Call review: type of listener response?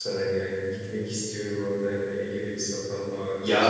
taking over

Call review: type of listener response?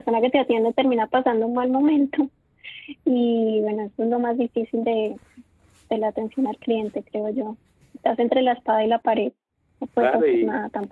taking over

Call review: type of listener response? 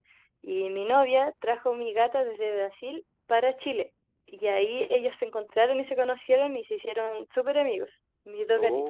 listening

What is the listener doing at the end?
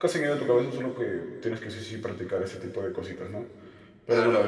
listening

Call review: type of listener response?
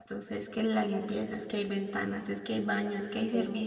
listening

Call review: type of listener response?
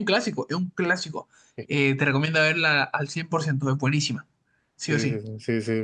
taking over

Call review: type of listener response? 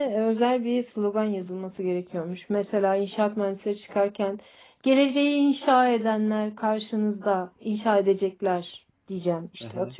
taking over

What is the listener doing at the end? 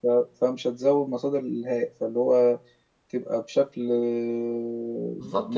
taking over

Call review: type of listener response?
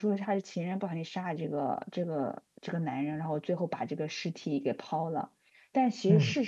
listening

